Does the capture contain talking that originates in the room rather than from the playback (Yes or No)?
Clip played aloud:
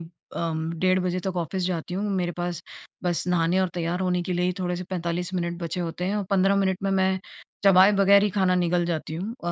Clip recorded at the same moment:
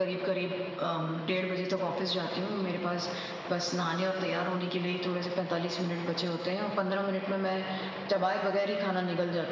No